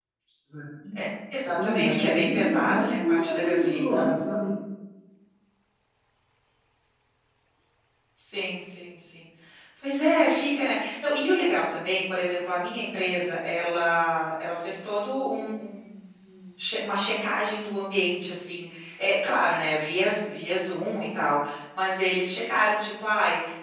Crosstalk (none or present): present